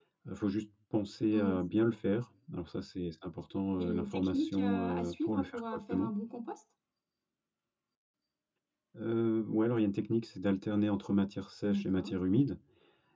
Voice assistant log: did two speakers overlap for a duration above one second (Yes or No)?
Yes